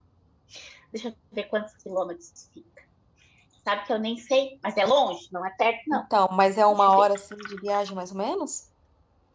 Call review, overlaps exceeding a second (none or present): none